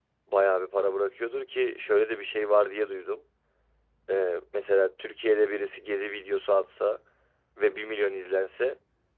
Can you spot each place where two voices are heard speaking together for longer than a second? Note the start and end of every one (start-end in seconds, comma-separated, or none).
none